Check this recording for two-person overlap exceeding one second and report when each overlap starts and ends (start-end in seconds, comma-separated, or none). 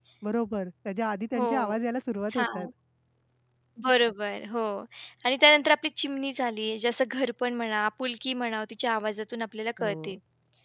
none